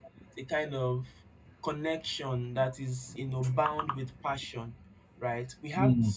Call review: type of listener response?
listening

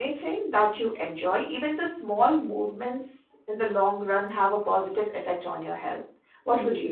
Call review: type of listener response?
taking over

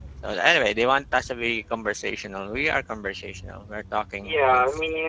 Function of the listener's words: taking over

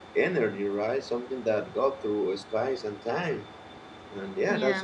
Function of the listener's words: listening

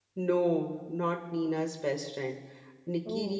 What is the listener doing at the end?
listening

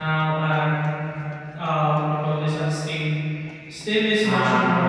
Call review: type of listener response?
listening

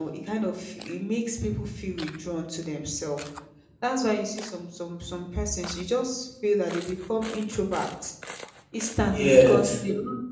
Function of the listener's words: listening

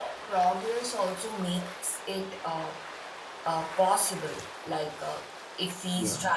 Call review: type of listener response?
listening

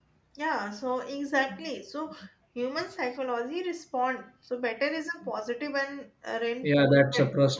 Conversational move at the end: taking over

